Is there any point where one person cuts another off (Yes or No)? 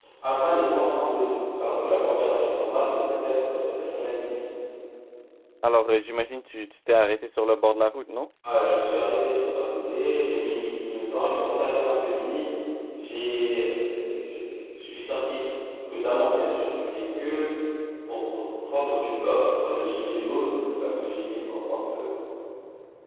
No